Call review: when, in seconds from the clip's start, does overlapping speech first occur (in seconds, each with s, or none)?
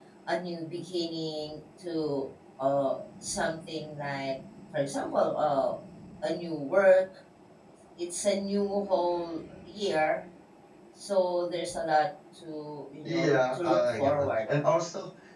13.0 s